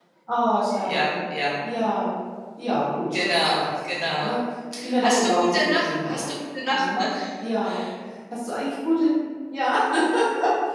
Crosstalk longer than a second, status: present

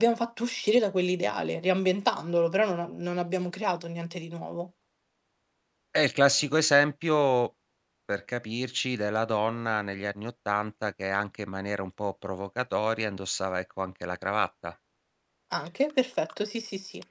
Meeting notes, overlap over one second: none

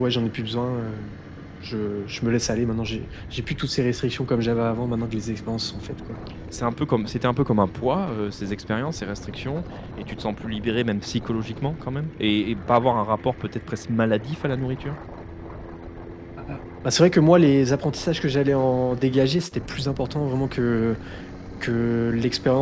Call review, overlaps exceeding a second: none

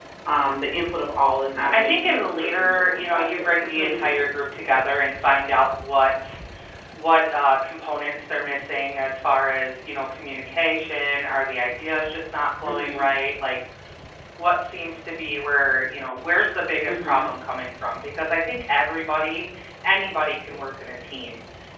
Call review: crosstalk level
present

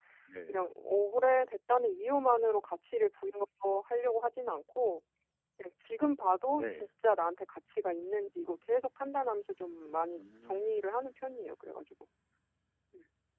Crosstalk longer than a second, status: none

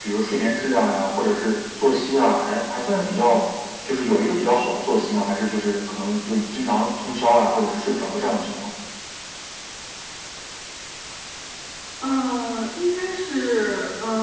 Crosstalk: none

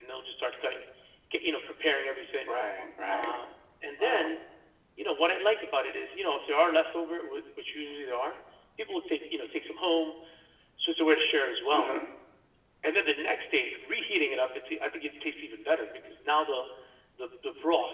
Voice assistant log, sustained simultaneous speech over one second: none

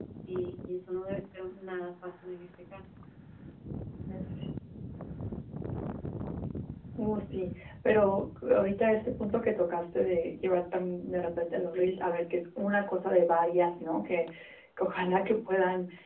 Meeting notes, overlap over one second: none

